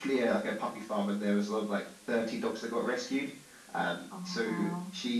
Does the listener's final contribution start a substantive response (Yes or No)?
No